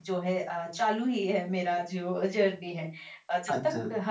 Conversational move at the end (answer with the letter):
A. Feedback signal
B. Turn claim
B